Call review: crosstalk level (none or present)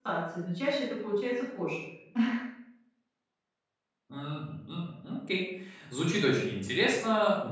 none